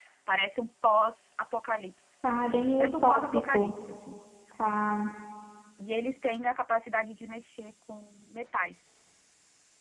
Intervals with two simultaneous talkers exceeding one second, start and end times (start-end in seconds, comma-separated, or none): 2.4-3.8